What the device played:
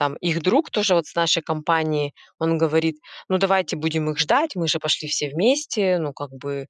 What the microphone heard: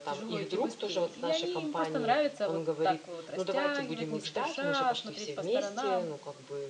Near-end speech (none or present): present